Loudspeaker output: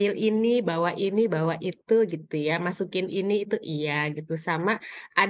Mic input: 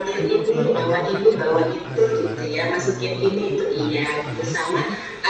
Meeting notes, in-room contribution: present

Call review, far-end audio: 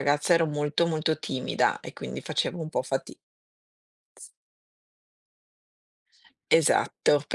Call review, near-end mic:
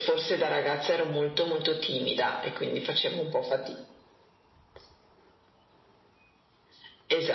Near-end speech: none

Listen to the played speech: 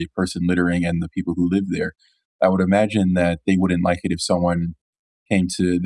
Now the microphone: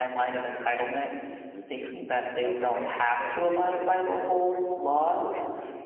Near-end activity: present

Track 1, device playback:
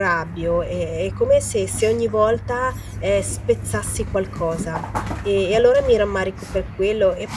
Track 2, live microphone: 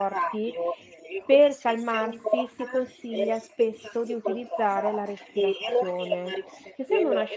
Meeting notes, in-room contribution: present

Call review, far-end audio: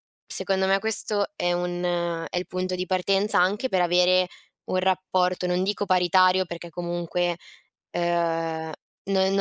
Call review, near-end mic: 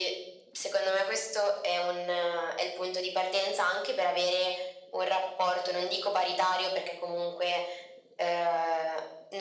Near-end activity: none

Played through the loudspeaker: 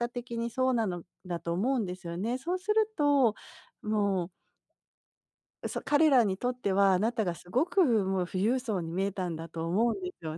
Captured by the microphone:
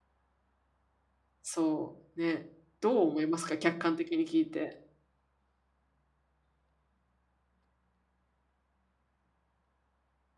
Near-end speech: present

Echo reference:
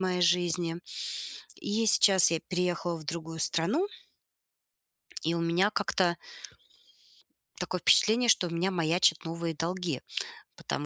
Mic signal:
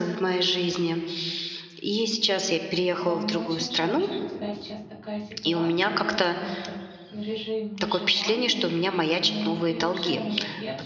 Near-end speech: present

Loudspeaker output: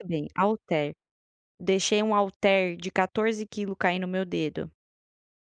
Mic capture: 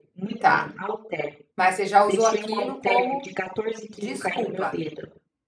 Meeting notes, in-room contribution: present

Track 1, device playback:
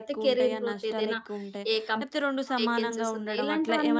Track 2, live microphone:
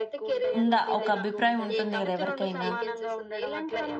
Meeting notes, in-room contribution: present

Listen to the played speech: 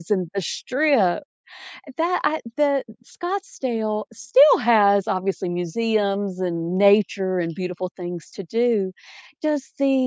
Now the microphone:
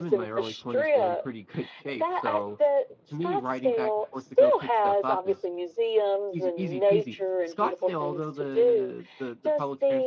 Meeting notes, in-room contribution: present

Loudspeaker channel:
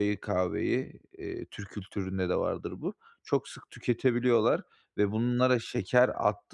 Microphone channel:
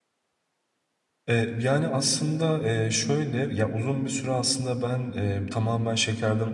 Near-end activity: present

